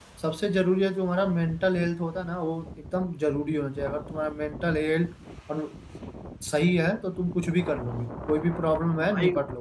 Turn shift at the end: No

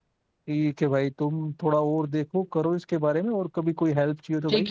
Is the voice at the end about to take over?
Yes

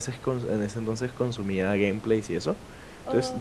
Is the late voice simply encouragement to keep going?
Yes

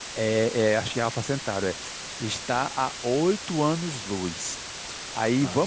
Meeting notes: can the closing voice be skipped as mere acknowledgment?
Yes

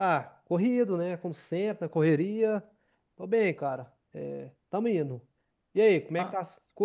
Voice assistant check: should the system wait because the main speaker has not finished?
No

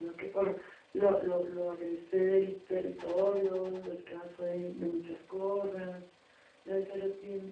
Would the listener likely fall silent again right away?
Yes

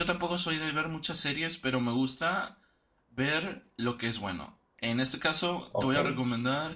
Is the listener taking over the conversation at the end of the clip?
No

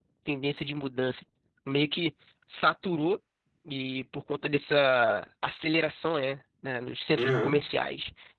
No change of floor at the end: Yes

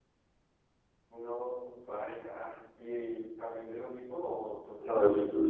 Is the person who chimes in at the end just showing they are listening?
No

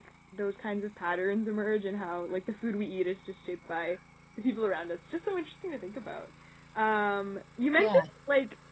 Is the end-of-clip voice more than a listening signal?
No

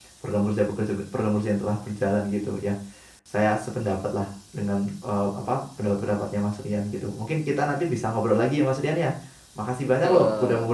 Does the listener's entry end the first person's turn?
No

